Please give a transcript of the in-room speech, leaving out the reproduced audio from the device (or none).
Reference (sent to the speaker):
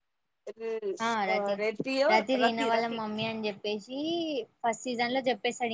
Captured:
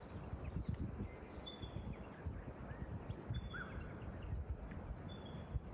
none